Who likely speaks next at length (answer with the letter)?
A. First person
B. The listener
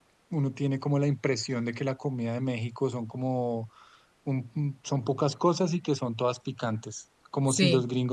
A